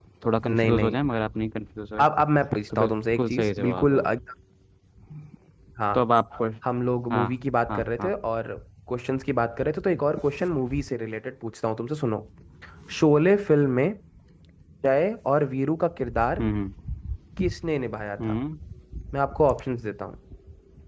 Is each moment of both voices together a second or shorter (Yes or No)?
No